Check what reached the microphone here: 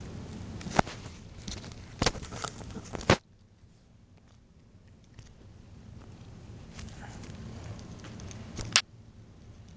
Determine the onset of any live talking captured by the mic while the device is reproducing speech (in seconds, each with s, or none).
none